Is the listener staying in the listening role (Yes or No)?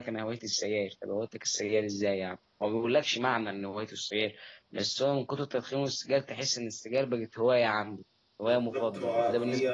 No